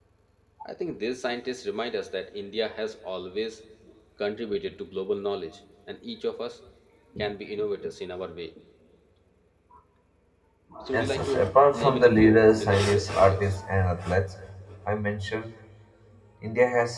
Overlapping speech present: Yes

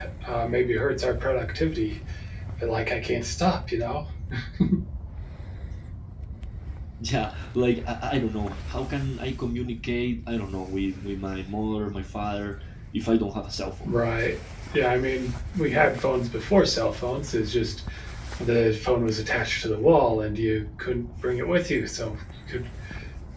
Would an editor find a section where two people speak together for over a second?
No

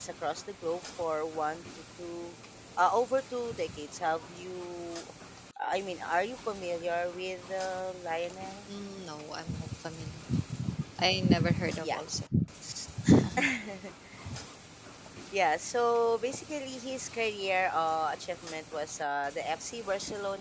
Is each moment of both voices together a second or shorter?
Yes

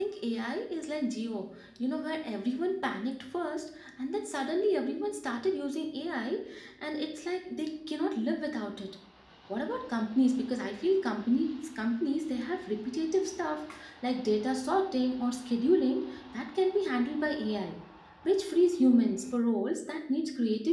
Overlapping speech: No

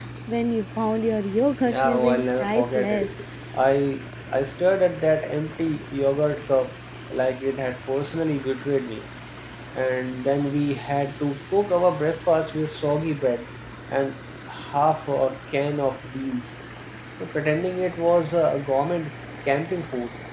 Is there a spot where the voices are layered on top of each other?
Yes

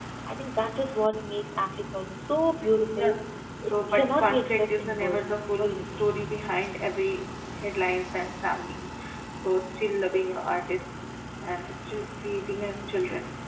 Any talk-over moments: Yes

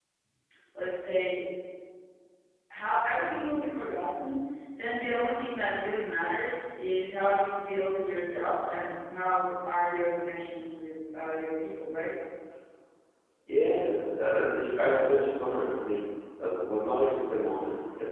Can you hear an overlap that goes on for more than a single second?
No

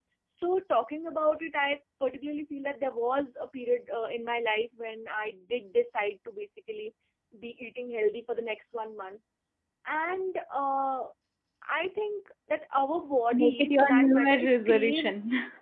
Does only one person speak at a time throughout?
No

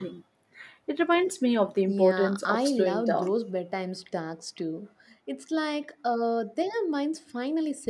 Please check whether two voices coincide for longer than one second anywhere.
Yes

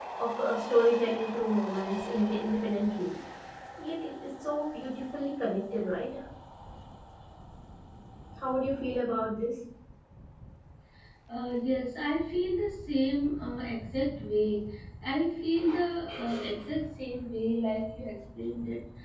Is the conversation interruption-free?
Yes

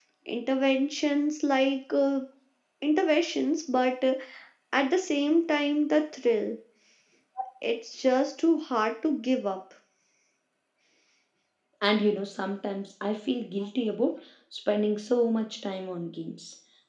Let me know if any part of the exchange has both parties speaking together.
No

